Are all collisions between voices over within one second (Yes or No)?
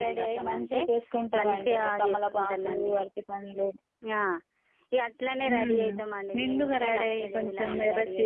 No